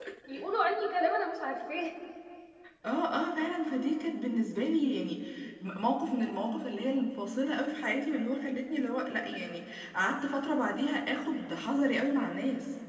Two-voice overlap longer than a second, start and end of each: none

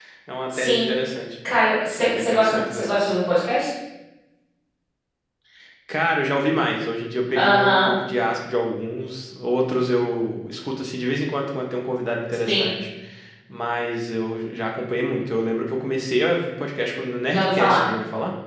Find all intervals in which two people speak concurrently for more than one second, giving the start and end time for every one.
1.9-3.1

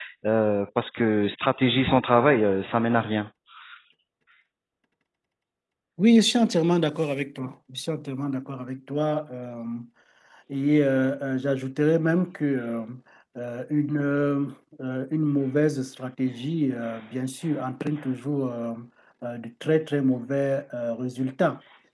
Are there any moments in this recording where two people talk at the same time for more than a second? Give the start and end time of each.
none

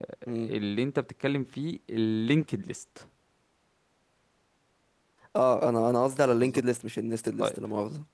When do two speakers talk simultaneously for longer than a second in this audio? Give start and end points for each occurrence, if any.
none

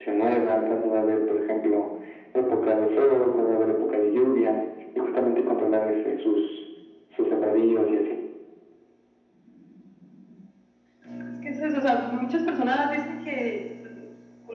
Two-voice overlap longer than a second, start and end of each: none

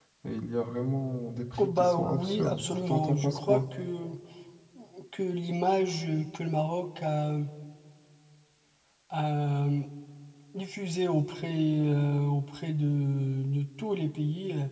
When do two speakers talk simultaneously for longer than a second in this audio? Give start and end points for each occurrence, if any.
1.6-3.6

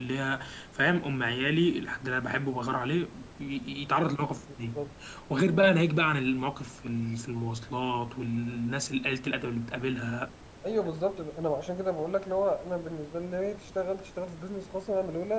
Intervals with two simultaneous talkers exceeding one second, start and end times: none

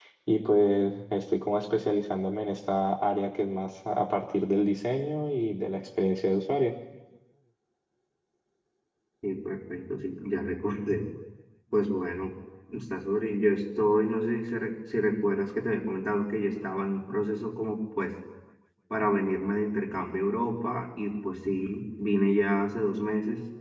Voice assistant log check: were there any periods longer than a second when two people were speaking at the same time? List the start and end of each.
none

